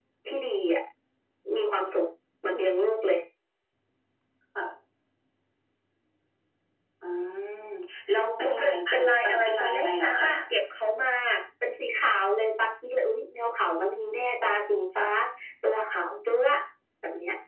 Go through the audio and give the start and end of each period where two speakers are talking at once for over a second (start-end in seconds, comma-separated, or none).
8.4-10.3